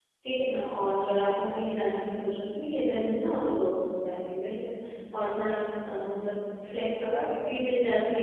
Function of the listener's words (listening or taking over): listening